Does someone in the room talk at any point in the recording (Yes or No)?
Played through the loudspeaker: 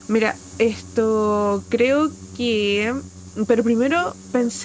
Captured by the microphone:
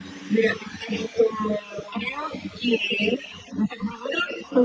No